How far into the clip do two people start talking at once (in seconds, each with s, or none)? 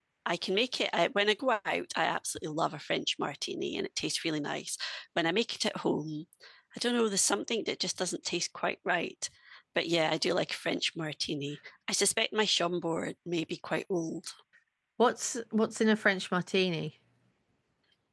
none